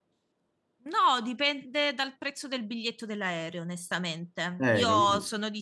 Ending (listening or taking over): listening